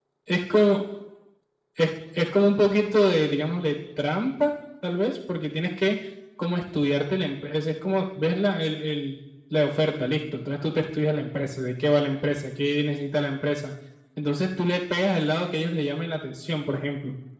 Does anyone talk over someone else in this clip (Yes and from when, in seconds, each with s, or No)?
No